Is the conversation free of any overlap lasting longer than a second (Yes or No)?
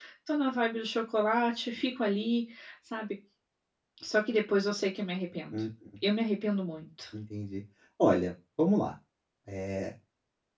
Yes